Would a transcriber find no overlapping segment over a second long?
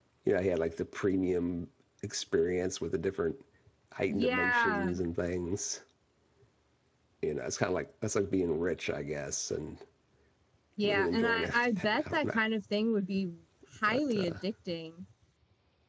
No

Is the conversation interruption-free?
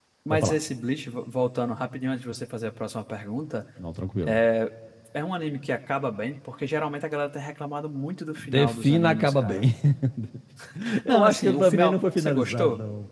No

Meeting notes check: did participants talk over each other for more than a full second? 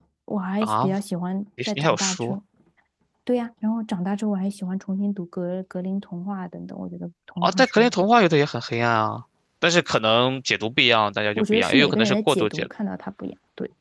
Yes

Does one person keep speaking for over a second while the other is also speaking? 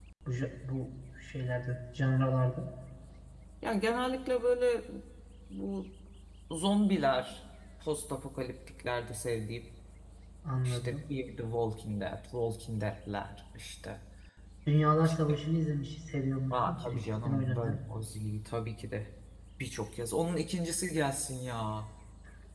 Yes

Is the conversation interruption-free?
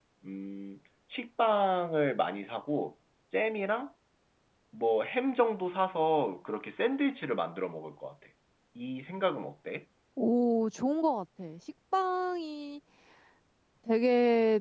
Yes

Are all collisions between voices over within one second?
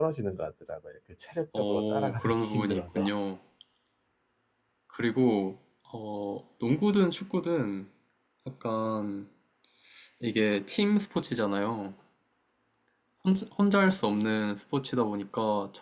No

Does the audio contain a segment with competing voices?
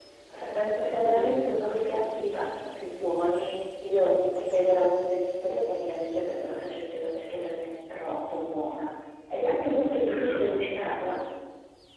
Yes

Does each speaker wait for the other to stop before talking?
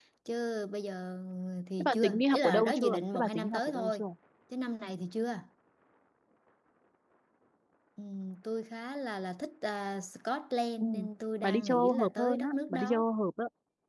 No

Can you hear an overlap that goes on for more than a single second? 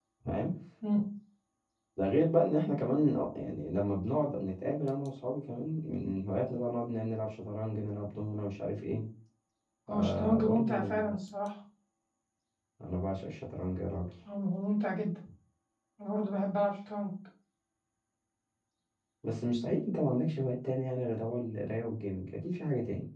Yes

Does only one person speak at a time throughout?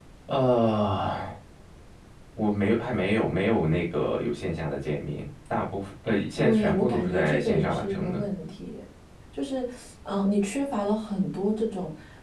No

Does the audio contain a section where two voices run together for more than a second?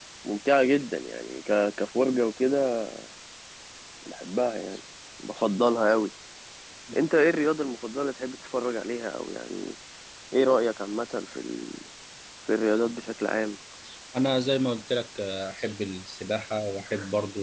No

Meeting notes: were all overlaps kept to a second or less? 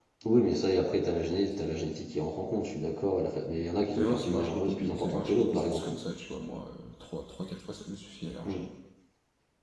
No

